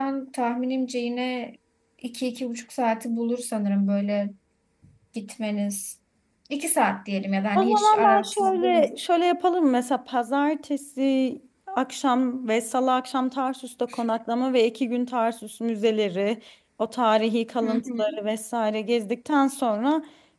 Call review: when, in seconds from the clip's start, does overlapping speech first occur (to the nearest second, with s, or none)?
8 s